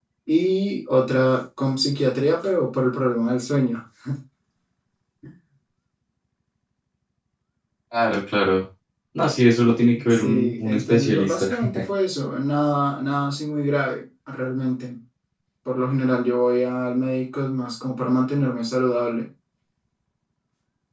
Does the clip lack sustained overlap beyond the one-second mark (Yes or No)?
No